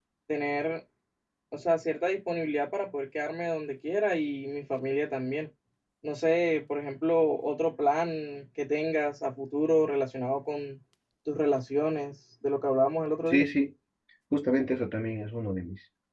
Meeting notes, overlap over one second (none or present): none